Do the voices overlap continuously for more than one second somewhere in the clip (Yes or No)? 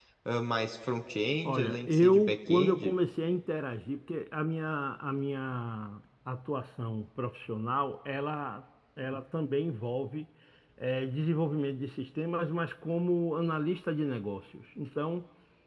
Yes